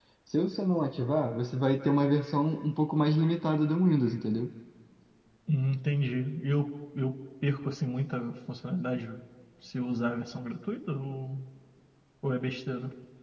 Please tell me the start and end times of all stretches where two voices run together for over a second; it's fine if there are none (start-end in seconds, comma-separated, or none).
none